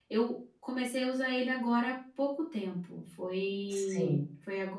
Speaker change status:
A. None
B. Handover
A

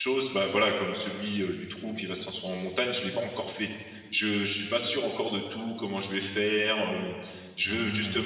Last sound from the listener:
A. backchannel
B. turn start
A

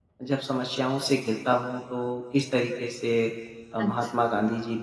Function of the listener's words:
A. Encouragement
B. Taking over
A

